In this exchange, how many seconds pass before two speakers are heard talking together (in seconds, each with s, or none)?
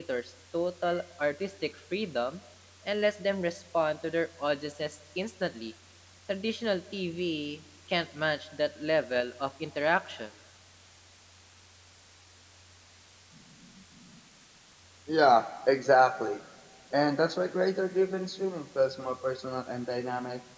none